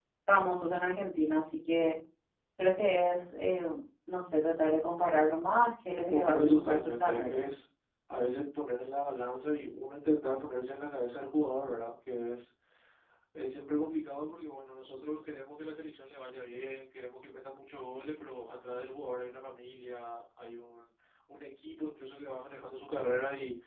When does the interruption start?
6.0 s

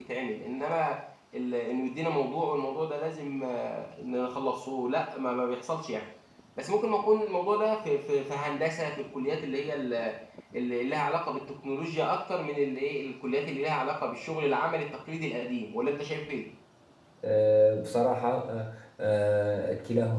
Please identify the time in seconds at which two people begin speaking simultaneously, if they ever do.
none

